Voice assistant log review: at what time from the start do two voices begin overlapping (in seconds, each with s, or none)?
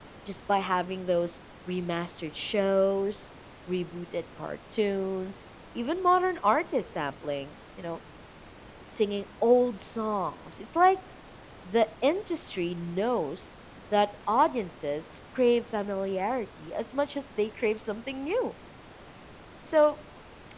none